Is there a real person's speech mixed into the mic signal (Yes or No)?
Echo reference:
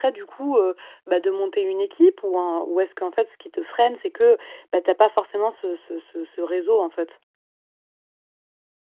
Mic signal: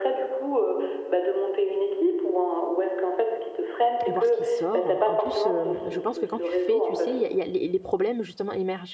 Yes